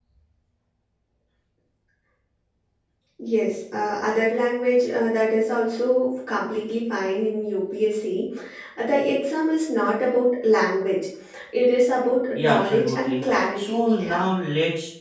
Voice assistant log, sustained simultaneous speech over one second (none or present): present